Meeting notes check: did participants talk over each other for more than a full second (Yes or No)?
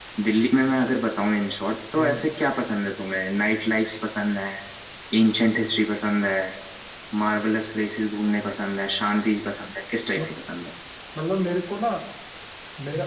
No